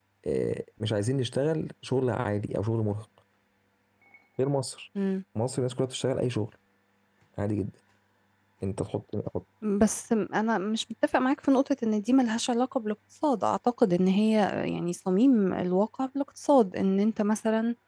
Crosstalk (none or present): none